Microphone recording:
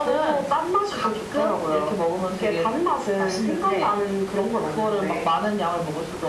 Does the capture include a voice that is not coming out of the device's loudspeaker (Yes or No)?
No